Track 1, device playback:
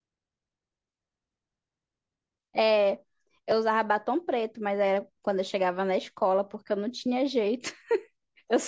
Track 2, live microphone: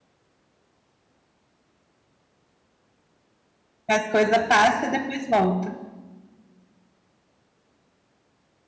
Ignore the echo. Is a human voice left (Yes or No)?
Yes